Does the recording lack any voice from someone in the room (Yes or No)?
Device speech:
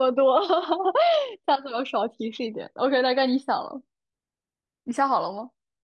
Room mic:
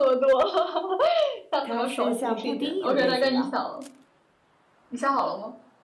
No